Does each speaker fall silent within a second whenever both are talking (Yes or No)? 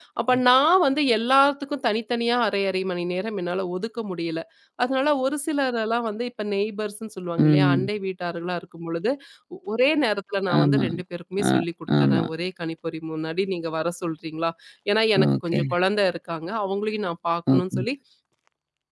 Yes